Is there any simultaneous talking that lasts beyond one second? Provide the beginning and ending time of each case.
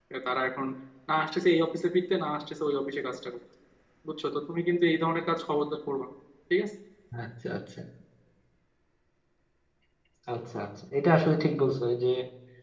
none

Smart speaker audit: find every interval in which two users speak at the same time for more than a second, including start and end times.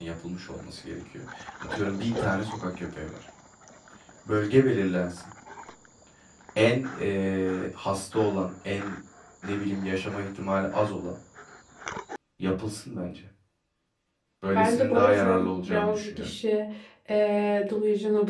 14.6-16.3

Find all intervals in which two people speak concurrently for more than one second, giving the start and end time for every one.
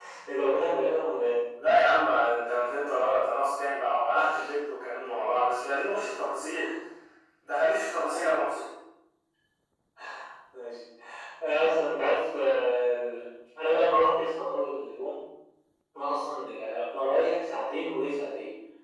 none

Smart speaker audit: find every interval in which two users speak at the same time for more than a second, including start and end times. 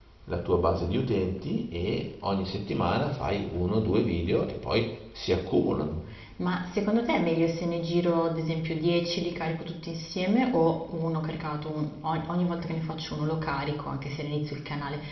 none

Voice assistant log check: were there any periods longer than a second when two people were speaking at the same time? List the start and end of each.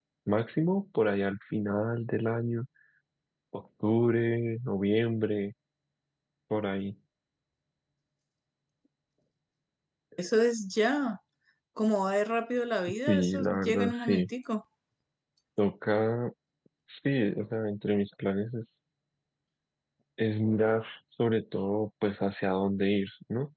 13.1-14.3

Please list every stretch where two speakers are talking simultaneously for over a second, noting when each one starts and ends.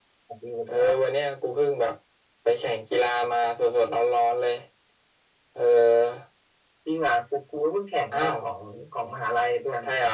none

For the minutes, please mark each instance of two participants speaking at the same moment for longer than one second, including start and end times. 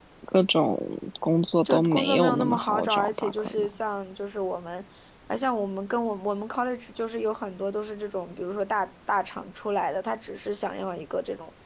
1.6-3.7

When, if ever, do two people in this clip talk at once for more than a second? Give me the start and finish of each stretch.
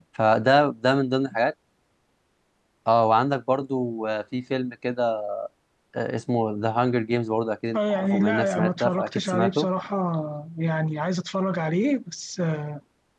7.7-9.7

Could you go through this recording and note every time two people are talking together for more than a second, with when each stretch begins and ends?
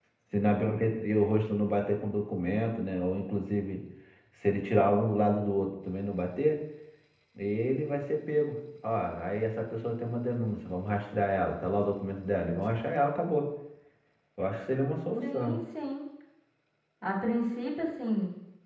none

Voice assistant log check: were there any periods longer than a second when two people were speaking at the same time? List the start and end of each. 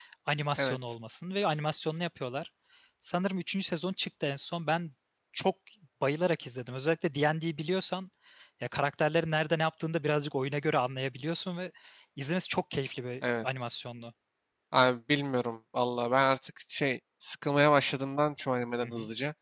none

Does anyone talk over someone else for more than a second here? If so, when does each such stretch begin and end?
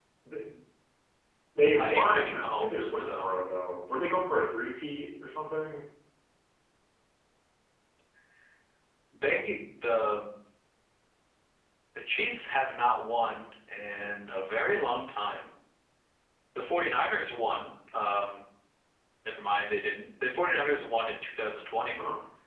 1.8-3.3

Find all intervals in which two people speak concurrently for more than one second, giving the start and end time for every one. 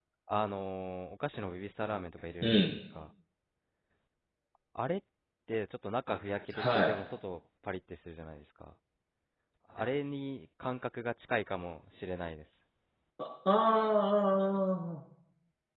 none

